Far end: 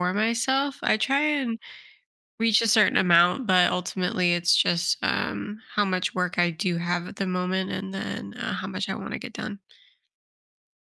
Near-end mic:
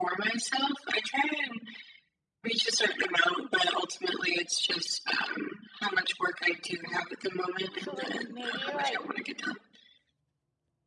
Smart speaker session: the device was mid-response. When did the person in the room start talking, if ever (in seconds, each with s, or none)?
6.8 s